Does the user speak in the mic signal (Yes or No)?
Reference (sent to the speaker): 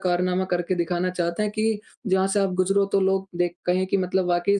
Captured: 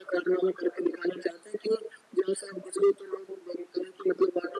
No